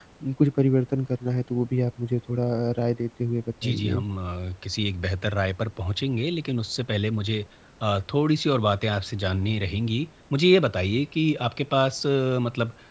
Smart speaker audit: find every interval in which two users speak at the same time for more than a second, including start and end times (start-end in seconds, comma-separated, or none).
none